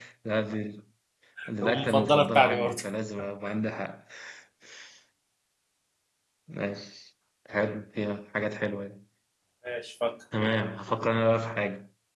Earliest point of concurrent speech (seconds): 1.6 s

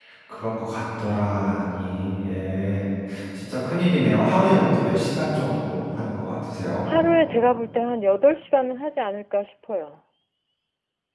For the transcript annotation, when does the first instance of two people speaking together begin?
none

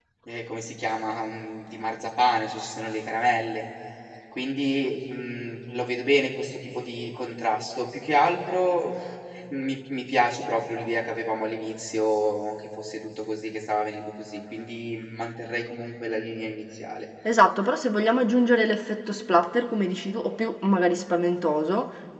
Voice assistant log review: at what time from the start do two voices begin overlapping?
none

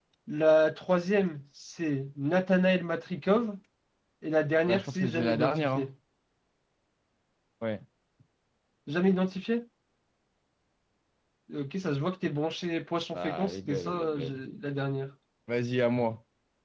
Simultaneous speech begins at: 4.6 s

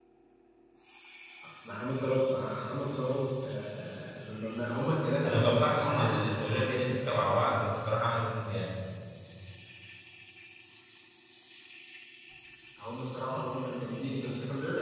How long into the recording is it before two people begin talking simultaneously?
5.2 s

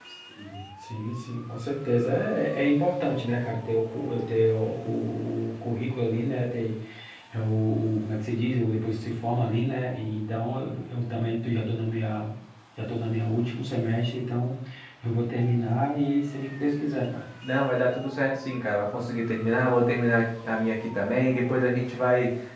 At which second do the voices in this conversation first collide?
none

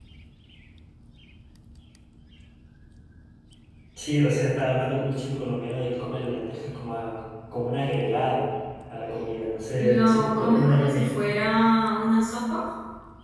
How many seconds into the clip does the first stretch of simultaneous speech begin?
9.8 s

